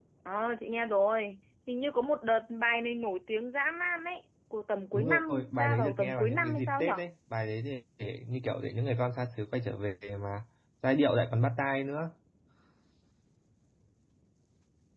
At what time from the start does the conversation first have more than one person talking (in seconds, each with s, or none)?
4.9 s